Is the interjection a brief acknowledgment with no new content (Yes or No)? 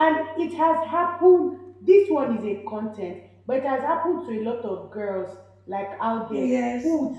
Yes